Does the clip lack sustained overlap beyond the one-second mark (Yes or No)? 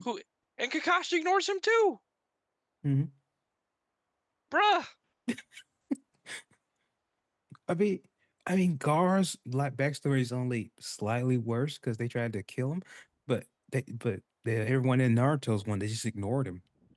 Yes